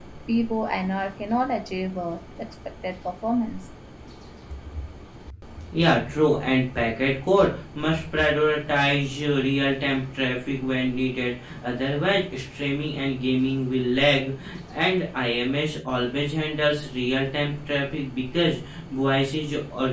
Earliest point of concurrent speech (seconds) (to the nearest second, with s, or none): none